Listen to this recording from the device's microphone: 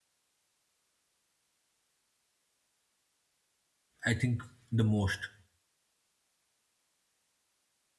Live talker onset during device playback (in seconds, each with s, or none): 4.0 s